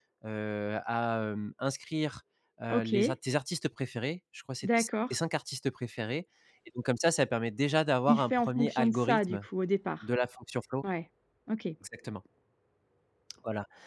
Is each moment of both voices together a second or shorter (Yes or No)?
No